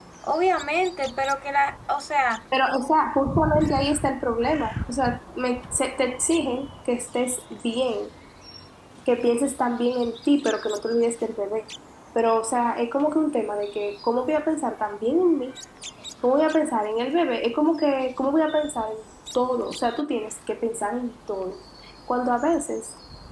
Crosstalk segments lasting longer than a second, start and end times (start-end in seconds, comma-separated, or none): none